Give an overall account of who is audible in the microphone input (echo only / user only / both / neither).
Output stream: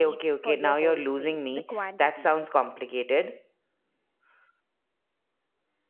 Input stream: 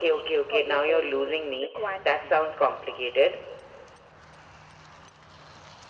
echo only